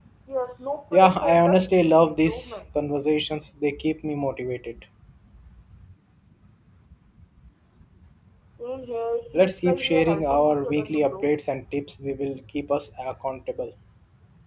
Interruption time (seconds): 0.9 s

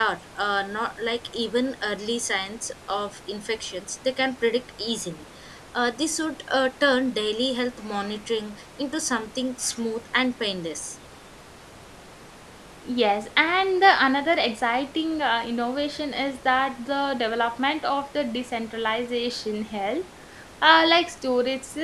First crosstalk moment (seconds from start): none

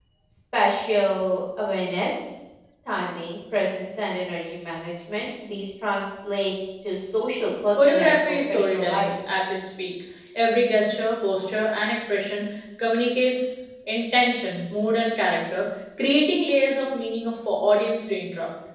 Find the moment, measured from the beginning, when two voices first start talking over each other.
7.8 s

